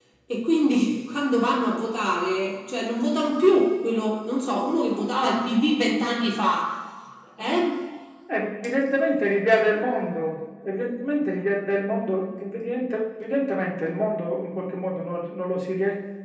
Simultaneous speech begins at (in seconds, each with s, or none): none